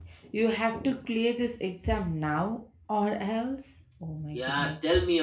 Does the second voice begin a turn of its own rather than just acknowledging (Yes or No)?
Yes